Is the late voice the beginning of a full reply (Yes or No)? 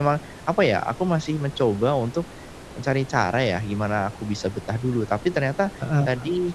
No